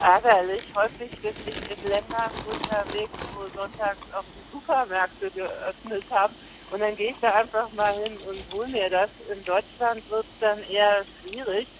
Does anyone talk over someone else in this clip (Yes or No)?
No